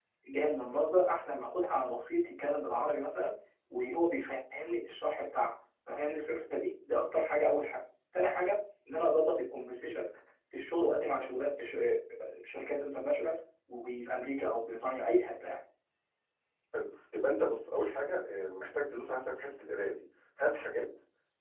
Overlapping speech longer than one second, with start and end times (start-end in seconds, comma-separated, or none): none